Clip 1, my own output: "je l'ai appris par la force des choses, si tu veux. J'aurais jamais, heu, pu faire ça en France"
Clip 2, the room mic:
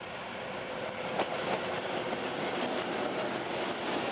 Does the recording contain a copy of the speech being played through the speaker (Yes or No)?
No